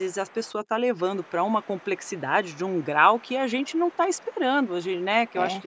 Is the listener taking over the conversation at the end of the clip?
No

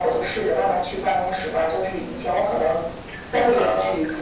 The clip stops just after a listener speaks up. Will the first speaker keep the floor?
Yes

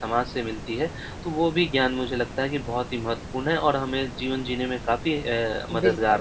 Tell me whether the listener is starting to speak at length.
Yes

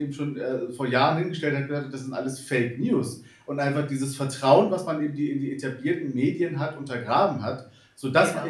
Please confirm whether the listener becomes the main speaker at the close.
No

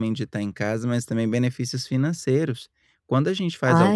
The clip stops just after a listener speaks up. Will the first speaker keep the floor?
Yes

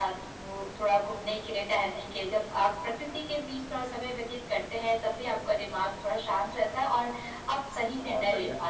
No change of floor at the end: Yes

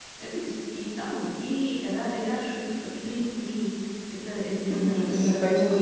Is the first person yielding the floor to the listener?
Yes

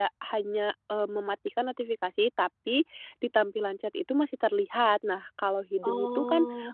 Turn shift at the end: No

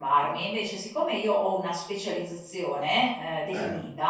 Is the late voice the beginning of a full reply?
No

